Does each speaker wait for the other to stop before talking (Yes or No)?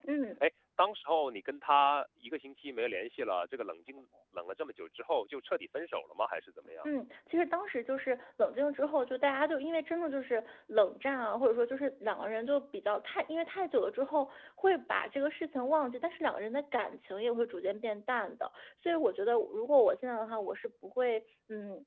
Yes